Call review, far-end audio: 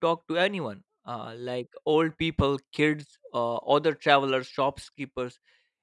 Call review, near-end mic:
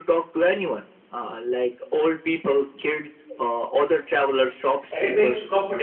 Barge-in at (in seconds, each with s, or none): 4.9 s